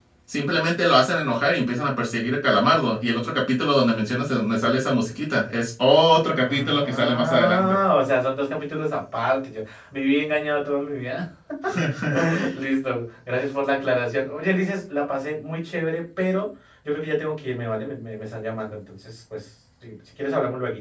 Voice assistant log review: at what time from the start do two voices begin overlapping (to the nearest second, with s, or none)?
6 s